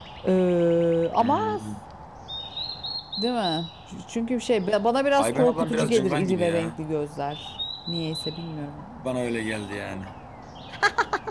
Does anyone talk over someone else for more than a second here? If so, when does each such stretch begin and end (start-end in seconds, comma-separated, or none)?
5.2-6.8